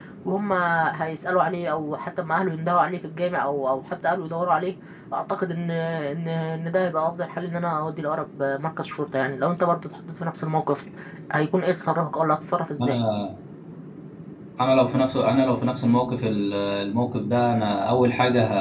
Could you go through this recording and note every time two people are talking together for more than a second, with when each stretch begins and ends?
none

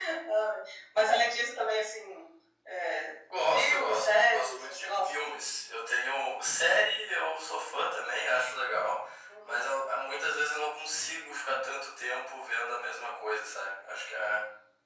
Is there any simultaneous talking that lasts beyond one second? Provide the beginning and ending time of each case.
3.5-5.1

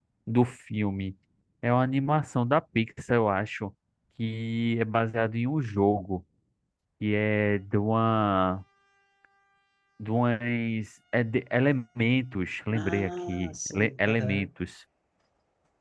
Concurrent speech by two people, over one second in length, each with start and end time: 12.7-14.5

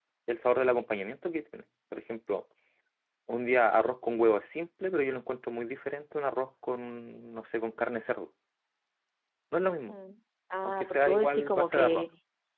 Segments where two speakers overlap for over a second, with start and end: 10.6-12.1

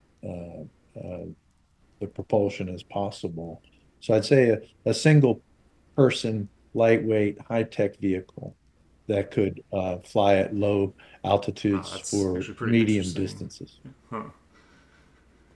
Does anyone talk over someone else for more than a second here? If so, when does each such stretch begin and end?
11.7-13.4

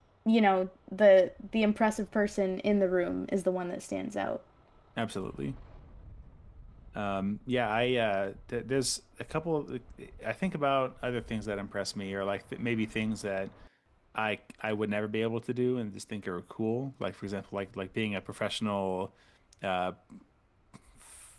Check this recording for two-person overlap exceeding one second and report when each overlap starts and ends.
none

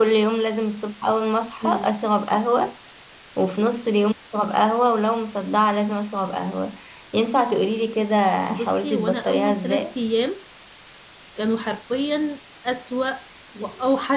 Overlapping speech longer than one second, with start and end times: 8.5-9.8

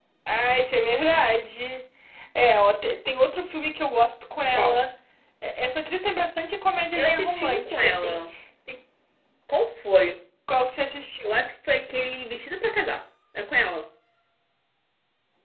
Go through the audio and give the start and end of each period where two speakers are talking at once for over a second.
7.0-8.2

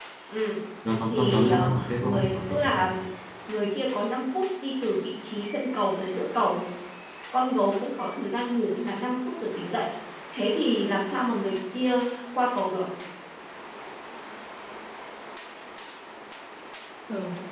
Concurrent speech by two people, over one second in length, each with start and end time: 1.1-2.7

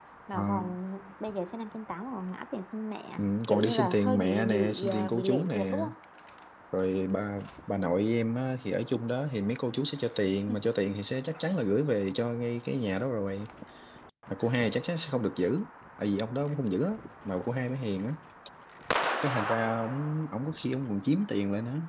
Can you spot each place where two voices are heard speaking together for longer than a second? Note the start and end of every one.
3.2-5.8

